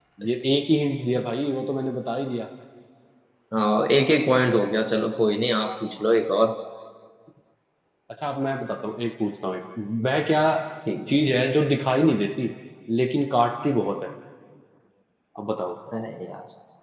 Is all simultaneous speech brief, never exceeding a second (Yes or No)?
Yes